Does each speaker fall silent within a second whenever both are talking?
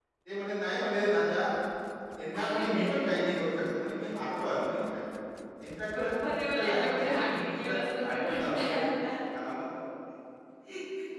No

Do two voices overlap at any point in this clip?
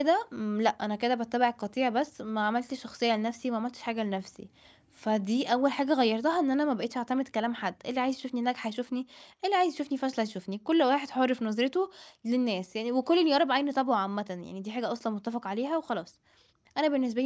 No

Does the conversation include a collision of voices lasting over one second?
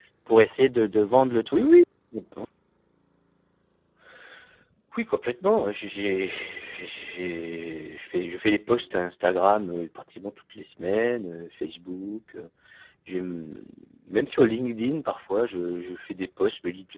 No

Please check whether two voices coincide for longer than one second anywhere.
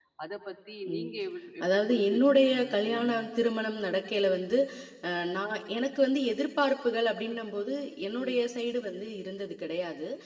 Yes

